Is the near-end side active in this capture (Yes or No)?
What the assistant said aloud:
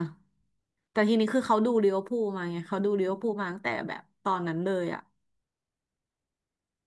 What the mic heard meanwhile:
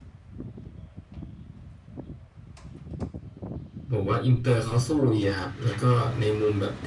Yes